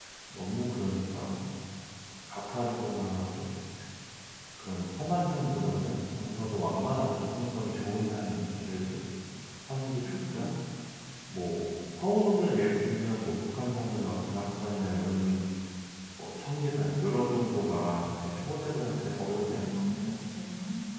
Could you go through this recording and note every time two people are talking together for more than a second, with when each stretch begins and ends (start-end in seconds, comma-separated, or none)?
none